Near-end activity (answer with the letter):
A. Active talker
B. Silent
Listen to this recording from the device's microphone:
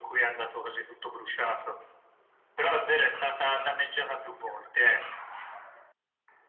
B